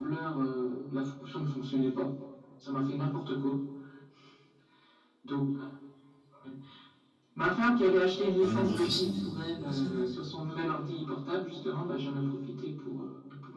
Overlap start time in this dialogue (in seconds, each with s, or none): 8.4 s